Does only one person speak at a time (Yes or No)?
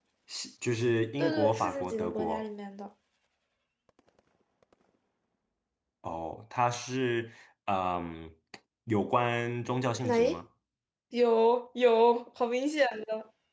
No